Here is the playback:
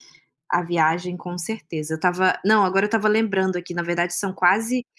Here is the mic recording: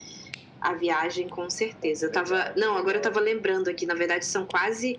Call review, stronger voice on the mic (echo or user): echo